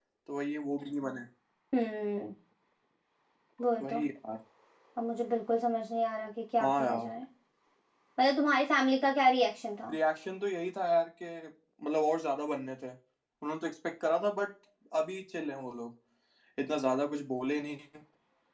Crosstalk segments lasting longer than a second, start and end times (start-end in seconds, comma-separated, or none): none